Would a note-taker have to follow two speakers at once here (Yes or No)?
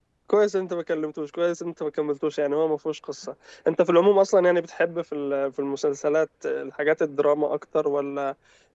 No